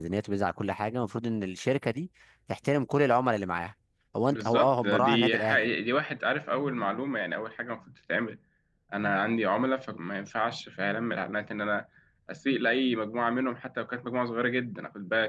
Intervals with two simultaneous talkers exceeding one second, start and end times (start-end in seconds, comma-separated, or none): 4.3-5.7